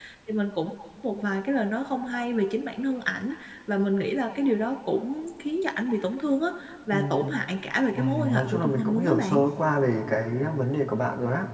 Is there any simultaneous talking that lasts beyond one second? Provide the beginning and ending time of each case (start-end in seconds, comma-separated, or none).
7.9-9.4